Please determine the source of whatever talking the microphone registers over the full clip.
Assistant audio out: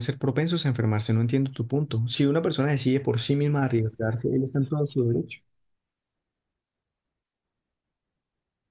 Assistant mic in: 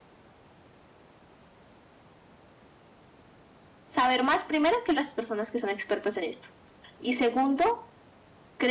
user only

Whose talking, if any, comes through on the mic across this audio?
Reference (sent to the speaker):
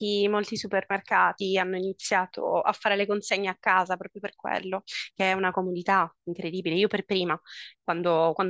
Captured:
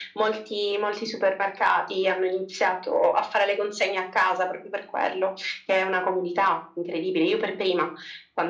echo only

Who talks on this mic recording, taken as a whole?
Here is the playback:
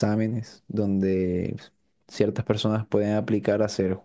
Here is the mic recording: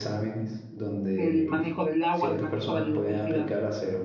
both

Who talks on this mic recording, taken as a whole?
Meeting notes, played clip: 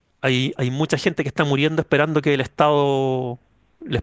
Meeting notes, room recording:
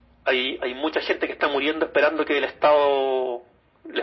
echo only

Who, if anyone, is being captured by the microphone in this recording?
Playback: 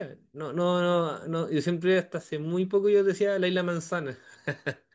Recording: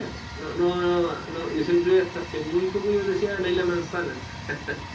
echo only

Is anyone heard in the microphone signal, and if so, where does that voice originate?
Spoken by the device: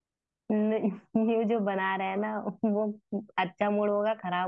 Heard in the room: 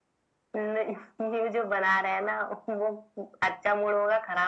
echo only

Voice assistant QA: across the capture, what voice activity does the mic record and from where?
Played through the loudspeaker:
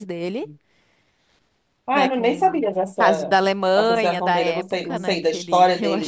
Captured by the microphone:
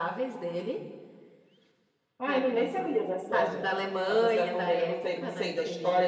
echo only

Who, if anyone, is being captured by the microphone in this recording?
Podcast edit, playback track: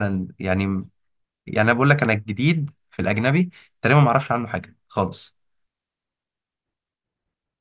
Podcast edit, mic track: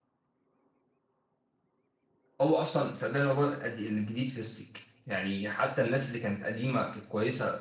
user only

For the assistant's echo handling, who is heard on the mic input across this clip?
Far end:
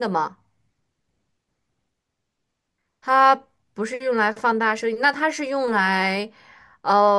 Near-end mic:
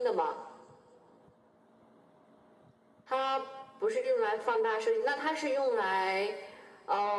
echo only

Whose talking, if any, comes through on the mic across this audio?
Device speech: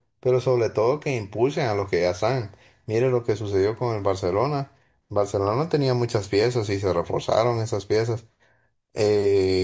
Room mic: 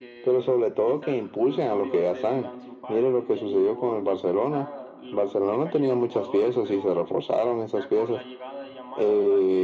both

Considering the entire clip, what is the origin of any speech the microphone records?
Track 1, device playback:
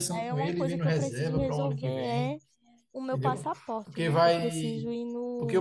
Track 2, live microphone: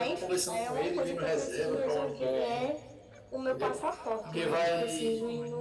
both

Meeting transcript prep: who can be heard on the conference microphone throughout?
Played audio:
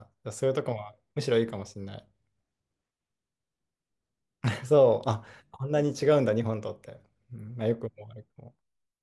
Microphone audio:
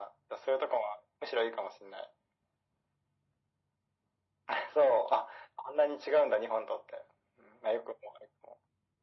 echo only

